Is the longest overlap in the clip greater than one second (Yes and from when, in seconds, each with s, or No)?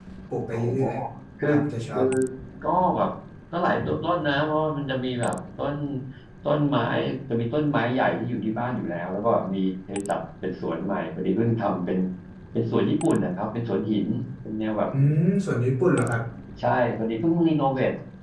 No